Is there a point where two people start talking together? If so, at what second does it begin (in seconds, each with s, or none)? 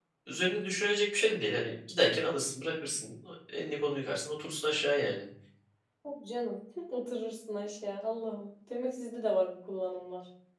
none